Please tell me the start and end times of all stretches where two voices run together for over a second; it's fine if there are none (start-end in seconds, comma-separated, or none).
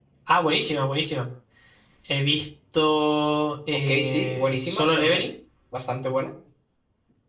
3.9-5.2